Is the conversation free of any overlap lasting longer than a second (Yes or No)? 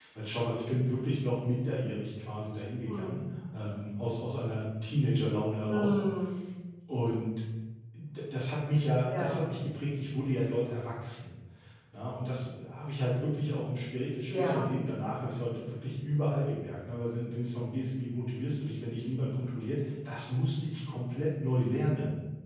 Yes